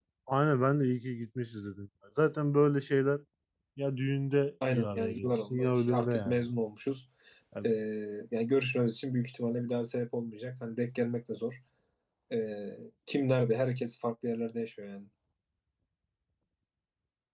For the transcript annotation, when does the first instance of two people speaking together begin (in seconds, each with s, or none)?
4.6 s